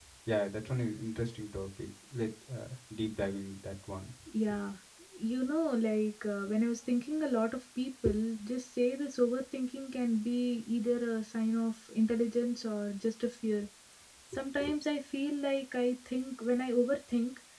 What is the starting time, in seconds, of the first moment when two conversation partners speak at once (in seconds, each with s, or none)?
none